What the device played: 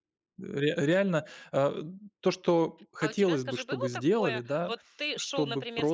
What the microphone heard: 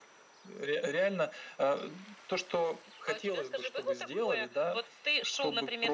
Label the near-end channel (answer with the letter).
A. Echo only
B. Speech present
A